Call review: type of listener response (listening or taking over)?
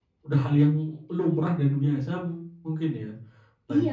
taking over